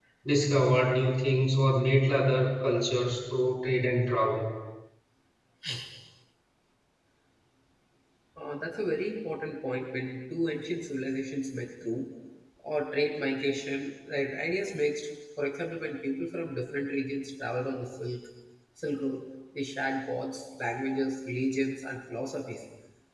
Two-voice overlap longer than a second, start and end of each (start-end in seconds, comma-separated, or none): none